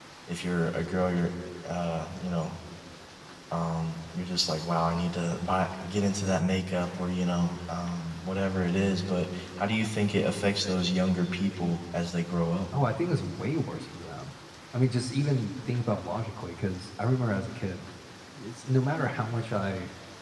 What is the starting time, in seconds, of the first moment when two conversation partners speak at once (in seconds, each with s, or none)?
none